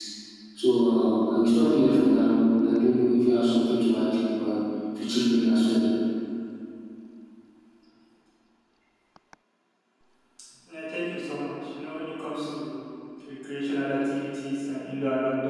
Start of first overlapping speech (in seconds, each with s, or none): none